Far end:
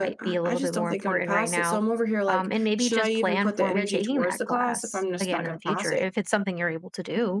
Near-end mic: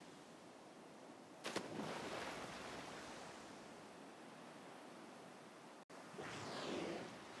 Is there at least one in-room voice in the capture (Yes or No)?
No